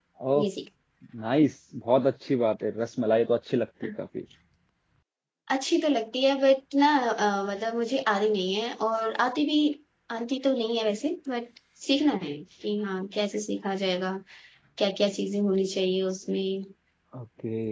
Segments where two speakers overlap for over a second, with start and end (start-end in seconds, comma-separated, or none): none